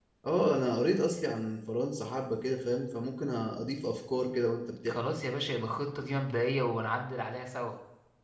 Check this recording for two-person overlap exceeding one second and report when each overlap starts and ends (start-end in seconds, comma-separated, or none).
none